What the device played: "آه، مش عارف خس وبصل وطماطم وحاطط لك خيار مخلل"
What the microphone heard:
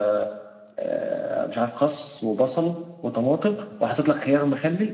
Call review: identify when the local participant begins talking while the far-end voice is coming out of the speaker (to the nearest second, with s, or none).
none